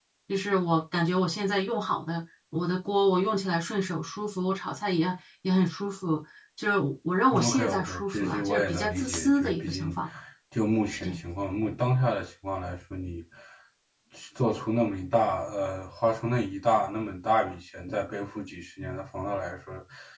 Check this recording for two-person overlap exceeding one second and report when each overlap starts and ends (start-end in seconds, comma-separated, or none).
7.4-9.9